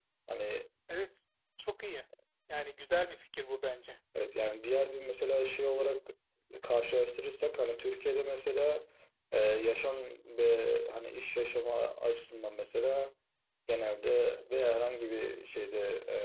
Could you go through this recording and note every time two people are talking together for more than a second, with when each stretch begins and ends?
none

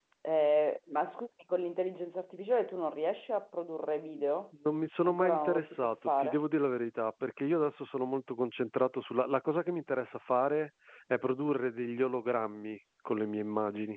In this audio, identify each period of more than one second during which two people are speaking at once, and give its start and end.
5.0-6.3

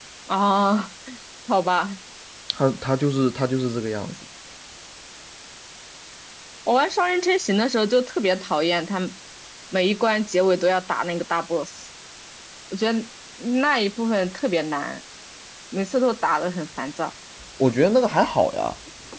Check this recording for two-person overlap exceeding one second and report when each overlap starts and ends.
none

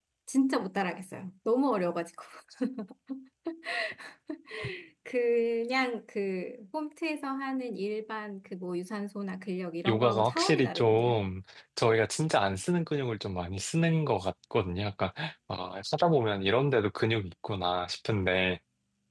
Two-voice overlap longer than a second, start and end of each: 9.9-11.2

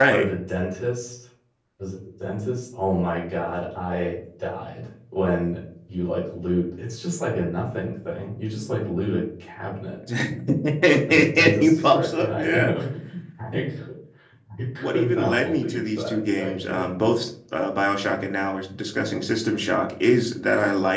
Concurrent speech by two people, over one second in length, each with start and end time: 11.1-12.7, 14.8-17.1

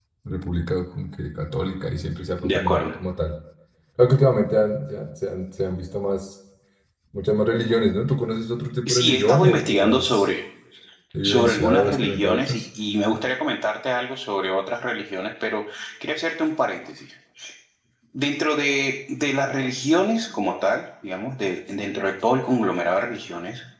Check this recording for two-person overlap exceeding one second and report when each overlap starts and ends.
8.9-10.3, 11.2-12.7

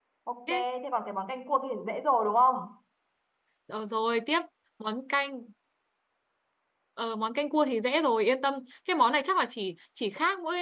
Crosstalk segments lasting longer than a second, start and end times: none

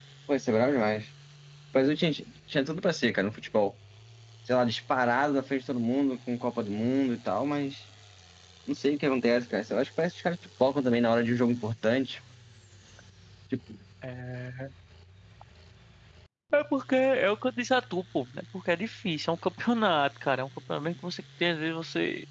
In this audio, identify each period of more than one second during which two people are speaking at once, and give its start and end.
none

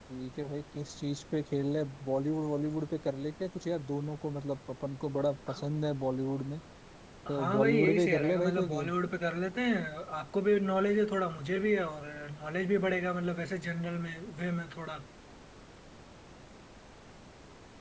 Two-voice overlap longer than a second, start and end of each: 7.3-8.9

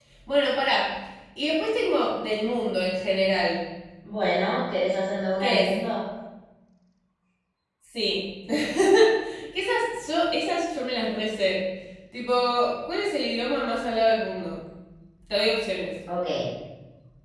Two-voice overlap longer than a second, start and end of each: none

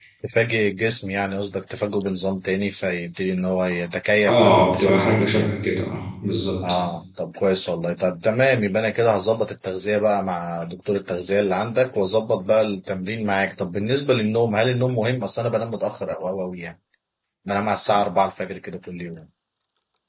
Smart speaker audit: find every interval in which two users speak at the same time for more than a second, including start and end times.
4.3-5.5

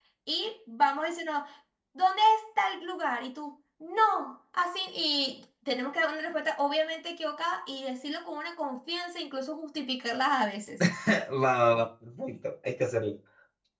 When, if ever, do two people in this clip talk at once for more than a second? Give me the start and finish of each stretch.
none

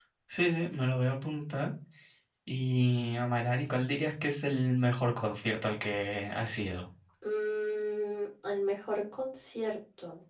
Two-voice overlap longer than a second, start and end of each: none

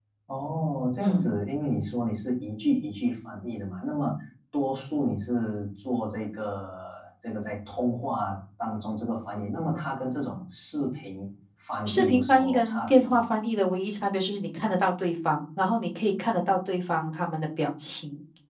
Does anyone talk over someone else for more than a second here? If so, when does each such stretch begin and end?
11.9-13.2

